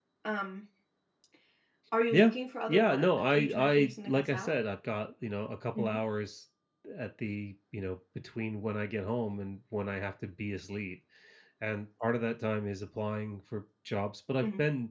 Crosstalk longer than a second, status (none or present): present